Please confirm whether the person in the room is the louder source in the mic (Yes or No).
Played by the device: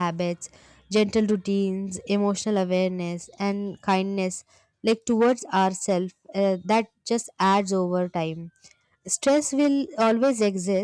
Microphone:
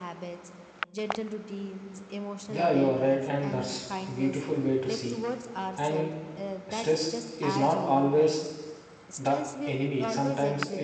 Yes